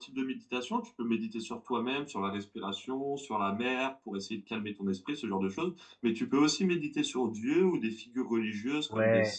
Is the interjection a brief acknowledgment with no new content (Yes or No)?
No